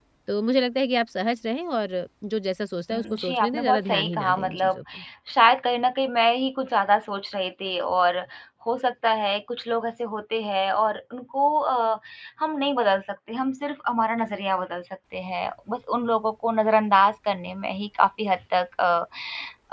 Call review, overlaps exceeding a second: present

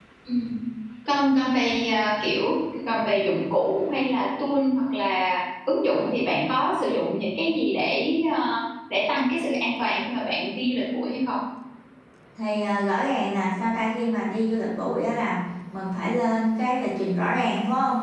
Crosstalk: none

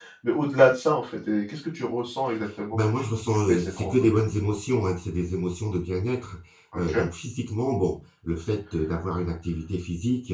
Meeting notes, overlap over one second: present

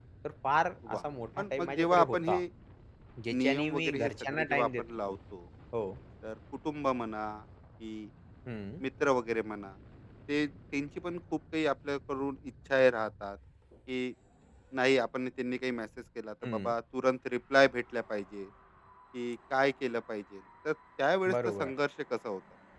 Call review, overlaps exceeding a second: present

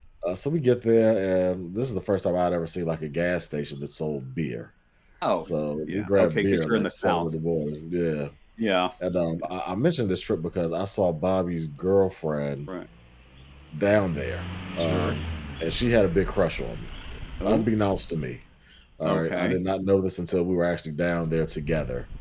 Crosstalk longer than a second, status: present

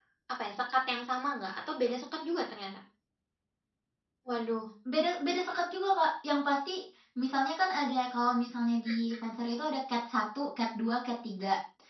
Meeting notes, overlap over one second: none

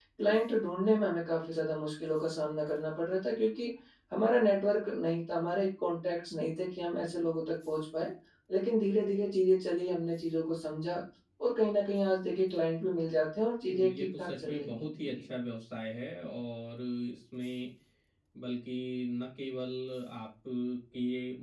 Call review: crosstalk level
present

